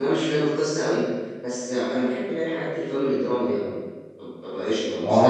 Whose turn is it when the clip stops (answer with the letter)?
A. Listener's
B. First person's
A